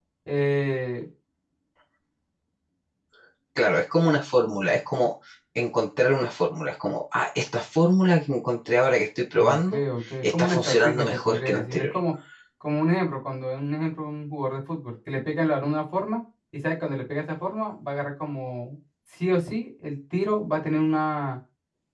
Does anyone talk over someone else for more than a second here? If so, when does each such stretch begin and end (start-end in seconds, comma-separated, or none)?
10.4-11.9